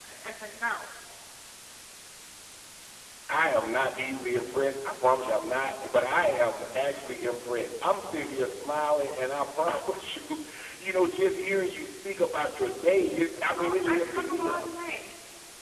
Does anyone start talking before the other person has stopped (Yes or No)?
Yes